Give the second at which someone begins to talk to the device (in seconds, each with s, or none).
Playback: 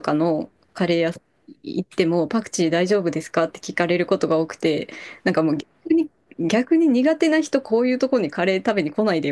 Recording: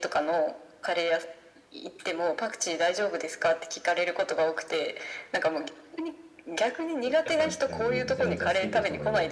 7.1 s